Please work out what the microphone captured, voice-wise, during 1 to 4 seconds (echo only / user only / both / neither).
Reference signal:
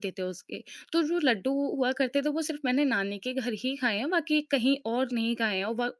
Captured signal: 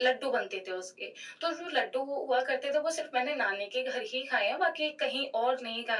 echo only